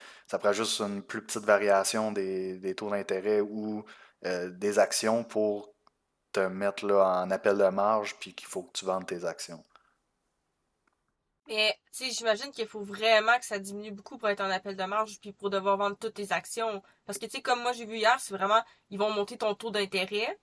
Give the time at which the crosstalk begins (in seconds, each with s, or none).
none